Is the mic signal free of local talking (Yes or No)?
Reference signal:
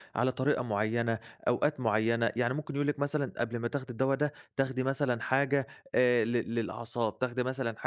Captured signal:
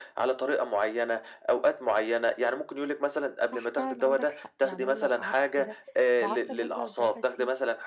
No